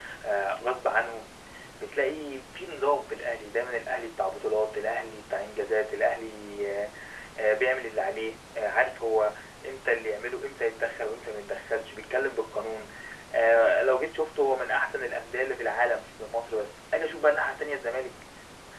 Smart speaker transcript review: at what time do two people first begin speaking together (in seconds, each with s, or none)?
none